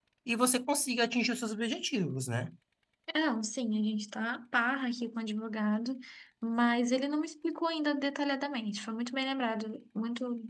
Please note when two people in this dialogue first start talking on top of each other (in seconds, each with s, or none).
none